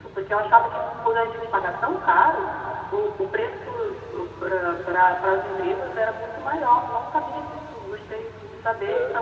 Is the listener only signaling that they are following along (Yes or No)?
Yes